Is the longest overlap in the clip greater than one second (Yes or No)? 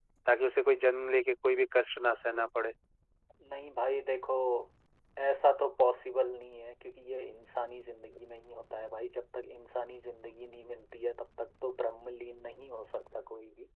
No